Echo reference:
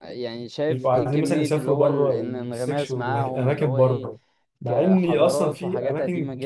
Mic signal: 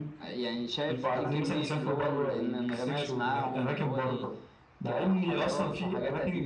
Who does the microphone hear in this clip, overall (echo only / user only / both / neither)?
echo only